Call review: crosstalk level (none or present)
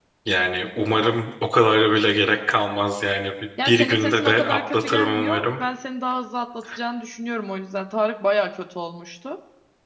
present